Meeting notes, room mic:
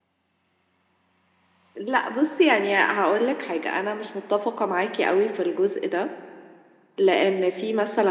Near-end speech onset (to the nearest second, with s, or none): none